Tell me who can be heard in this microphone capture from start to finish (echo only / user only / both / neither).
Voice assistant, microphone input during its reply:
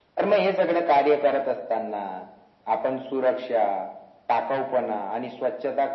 echo only